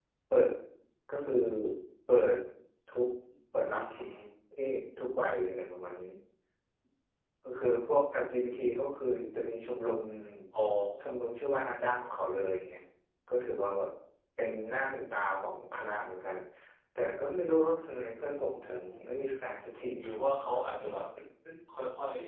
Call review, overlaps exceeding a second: none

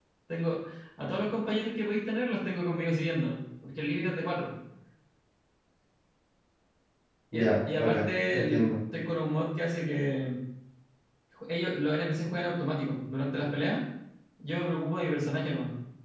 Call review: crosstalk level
present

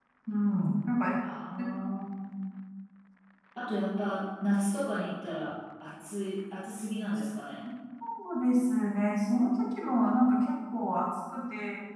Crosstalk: none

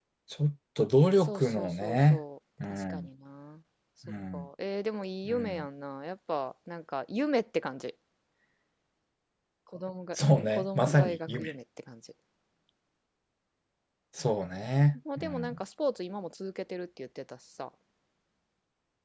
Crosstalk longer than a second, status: present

